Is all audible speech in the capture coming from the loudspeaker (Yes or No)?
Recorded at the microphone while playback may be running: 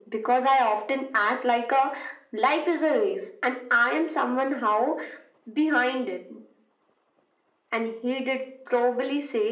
Yes